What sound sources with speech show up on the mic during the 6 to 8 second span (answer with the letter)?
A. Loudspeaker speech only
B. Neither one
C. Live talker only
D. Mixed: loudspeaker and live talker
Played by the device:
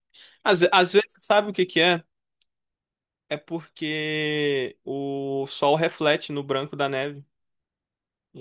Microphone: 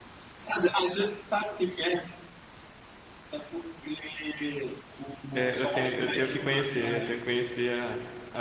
D